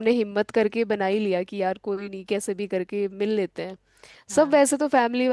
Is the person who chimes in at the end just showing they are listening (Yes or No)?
Yes